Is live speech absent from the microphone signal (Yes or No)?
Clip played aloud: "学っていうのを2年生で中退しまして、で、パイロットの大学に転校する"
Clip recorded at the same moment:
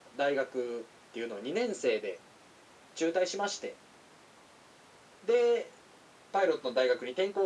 Yes